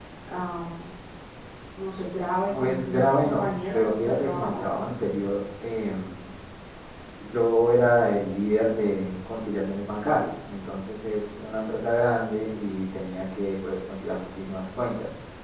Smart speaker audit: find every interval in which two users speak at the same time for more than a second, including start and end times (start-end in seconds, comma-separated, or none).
2.5-4.6